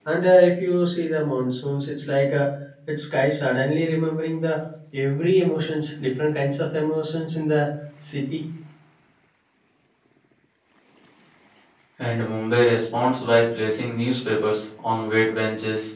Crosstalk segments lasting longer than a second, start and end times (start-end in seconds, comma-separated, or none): none